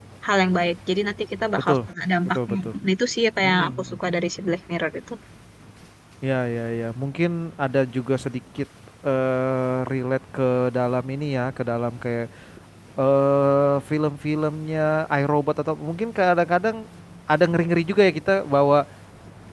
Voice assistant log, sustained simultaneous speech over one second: none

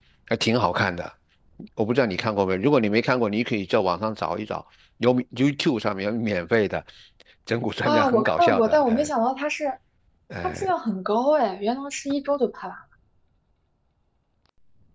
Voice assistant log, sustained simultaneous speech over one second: present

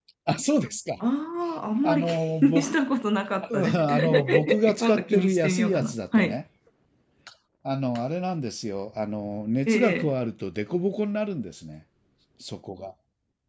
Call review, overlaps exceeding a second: present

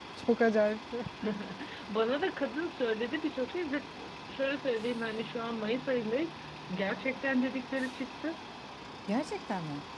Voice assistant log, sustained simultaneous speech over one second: none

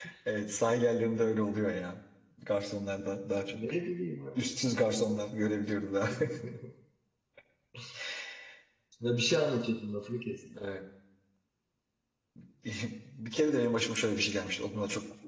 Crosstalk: none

